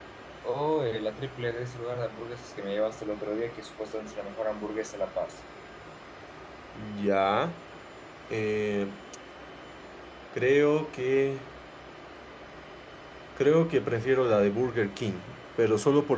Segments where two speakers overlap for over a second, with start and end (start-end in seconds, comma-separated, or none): none